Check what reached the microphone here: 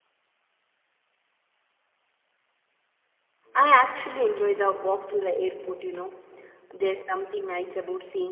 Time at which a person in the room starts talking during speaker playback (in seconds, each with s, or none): 3.6 s